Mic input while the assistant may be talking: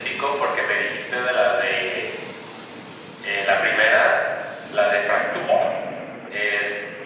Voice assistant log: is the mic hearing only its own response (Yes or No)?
Yes